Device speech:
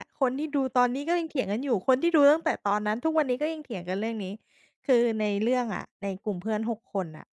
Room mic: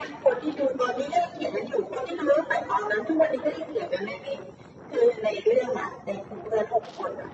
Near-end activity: none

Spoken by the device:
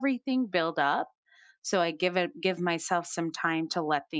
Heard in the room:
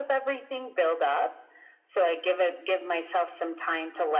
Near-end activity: none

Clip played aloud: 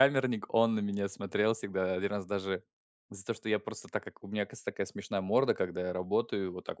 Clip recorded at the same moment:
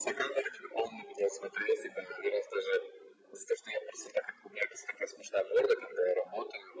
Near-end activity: none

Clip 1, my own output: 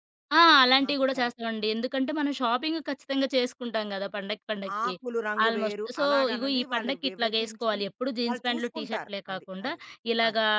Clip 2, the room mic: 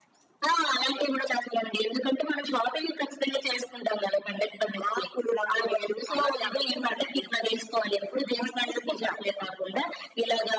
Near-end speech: none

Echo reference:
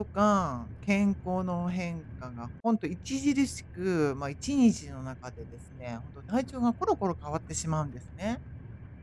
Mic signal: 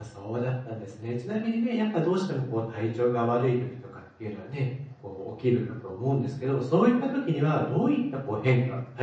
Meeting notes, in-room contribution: present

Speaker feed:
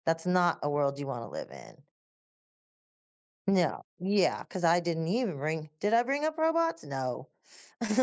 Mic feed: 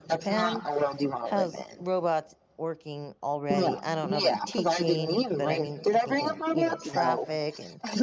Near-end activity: present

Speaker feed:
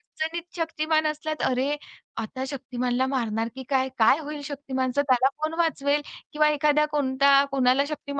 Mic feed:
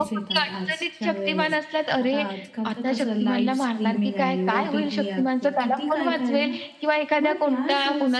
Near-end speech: present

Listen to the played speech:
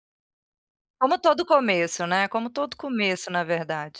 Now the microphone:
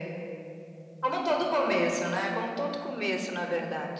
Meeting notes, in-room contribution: none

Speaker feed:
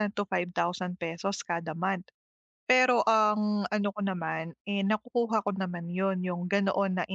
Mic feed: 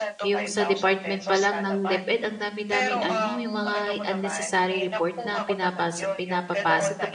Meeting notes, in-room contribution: present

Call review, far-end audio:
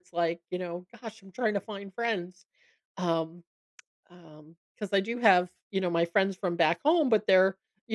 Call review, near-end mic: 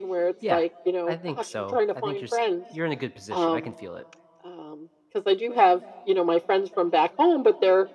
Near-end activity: present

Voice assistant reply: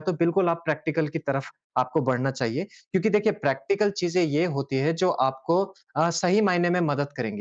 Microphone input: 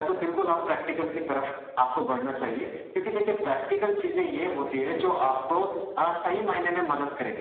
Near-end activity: none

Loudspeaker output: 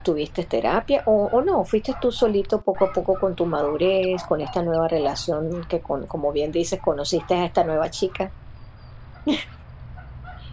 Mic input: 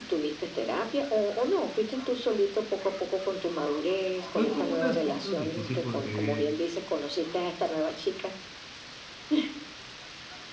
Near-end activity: present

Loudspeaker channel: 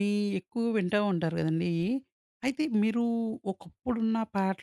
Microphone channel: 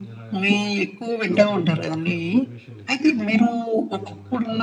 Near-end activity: present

